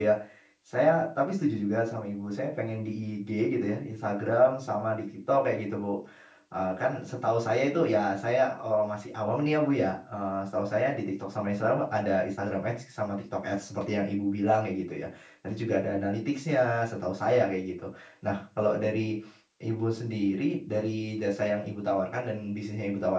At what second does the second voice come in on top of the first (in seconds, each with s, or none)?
none